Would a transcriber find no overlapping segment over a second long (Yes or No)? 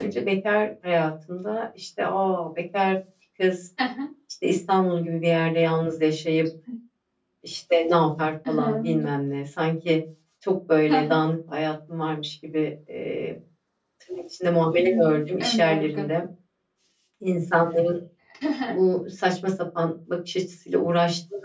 No